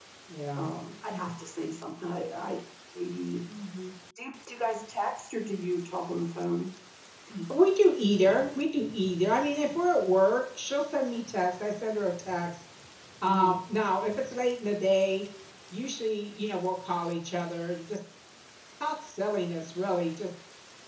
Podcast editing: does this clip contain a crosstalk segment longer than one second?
No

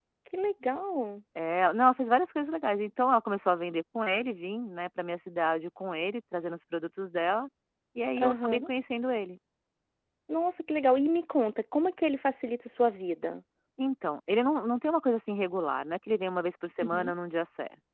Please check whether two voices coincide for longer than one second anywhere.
No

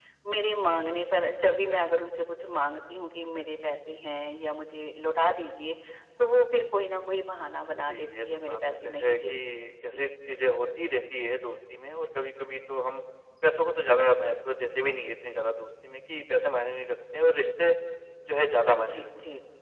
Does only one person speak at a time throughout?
No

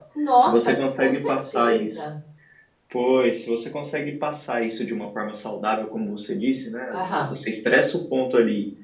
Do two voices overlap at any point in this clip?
Yes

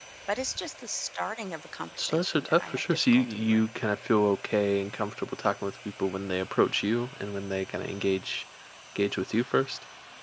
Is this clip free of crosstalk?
No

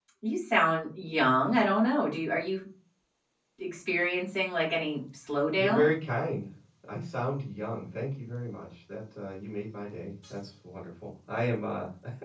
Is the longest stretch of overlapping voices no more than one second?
Yes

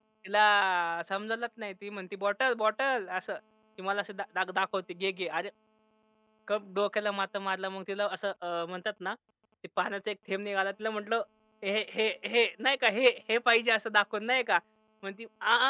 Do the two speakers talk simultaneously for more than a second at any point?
No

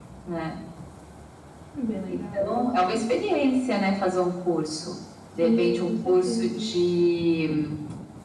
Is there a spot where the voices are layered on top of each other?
Yes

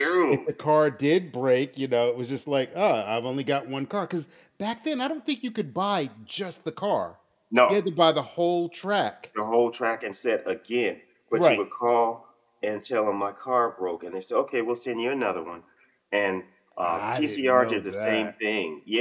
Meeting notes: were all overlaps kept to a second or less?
No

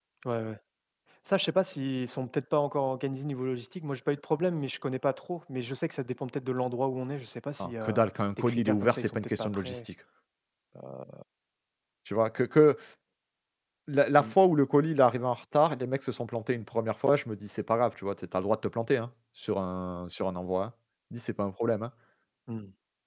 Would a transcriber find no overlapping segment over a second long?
No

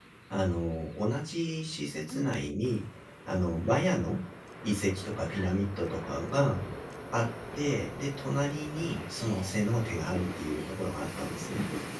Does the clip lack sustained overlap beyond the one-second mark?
Yes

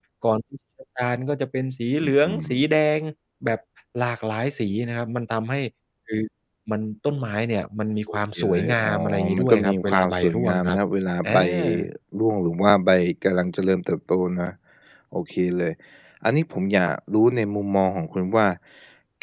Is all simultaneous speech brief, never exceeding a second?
No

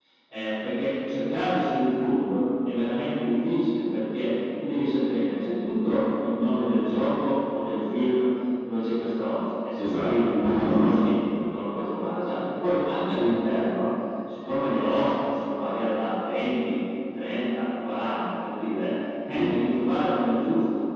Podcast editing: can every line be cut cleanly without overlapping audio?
No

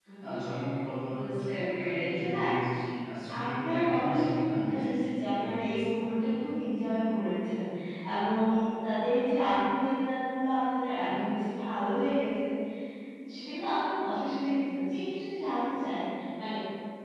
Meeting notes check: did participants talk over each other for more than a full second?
Yes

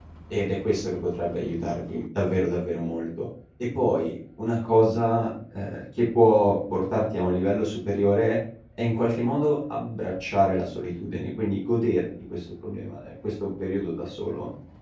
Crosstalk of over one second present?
No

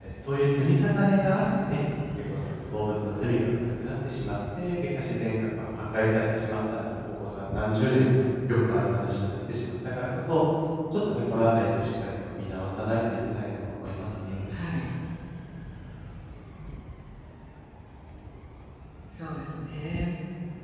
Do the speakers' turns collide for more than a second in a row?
No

